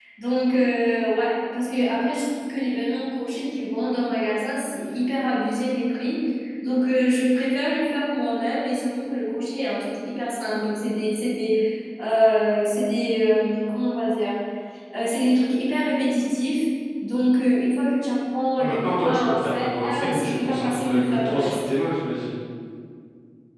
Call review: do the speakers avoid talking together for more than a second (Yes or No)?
No